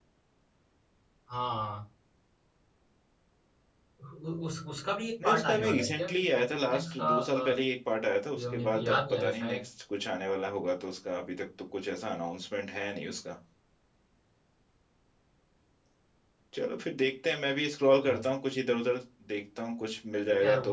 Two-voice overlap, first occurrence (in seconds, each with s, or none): 5.2 s